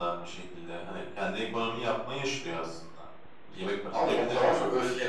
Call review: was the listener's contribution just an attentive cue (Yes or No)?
No